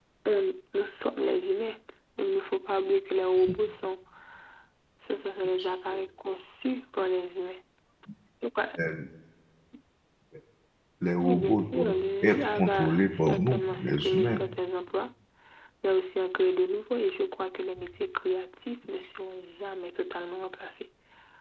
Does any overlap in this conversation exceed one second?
Yes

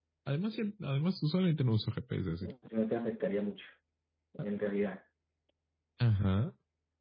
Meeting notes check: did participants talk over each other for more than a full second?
No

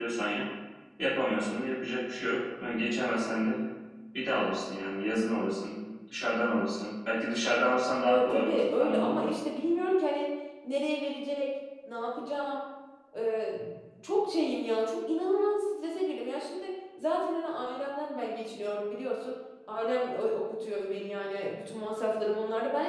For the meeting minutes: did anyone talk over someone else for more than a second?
Yes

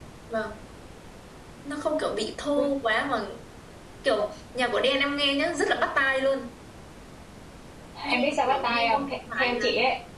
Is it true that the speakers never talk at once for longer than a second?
No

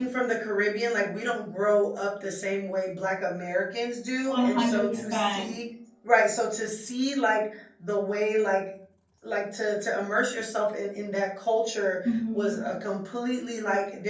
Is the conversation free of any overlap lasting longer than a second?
No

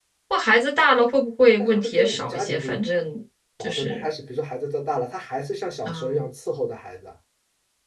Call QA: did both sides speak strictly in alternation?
No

